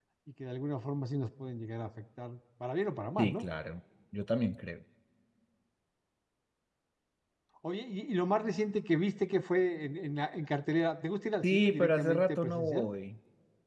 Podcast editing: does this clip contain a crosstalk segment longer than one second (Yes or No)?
Yes